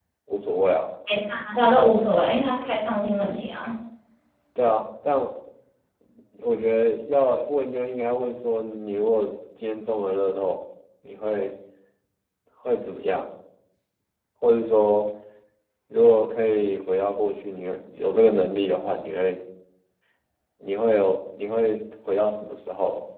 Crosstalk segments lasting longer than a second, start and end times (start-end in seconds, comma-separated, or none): none